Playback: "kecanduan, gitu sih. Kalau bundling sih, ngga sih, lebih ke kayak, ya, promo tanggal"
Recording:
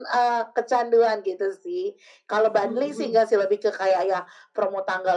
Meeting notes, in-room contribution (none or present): present